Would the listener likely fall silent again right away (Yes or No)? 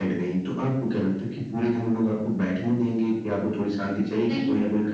Yes